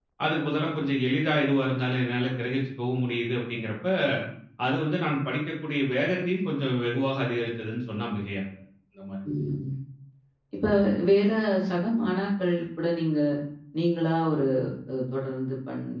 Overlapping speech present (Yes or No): No